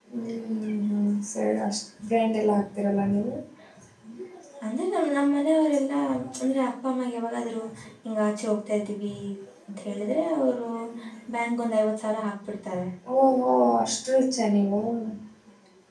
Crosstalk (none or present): none